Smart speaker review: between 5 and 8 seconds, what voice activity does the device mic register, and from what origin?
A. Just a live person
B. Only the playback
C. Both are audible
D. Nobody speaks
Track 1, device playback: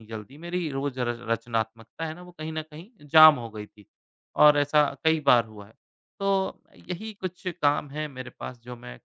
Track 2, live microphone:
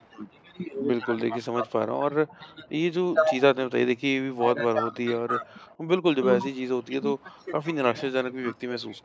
C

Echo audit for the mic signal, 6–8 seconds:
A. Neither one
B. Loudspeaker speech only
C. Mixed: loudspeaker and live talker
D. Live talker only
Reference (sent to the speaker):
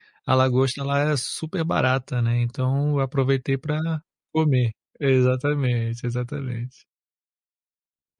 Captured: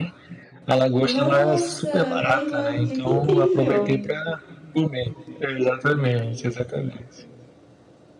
B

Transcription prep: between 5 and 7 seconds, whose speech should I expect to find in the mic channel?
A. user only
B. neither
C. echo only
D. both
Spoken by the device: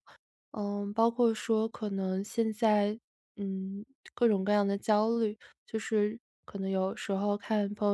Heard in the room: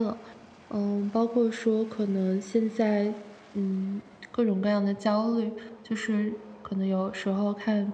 C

